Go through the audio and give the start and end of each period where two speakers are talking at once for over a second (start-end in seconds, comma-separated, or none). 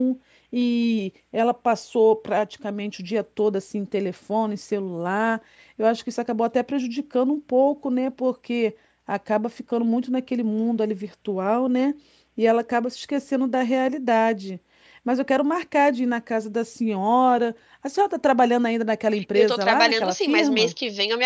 19.4-20.7